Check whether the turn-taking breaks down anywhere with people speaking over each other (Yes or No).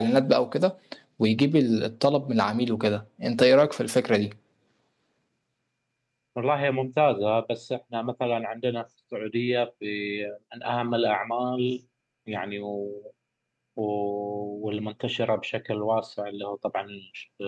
No